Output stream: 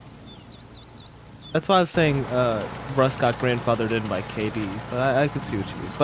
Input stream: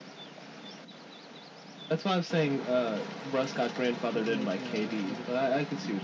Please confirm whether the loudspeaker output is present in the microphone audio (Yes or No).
Yes